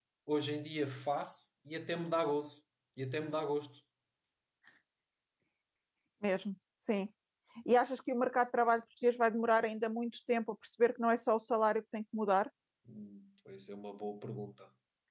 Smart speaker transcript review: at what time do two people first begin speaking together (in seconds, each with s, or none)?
none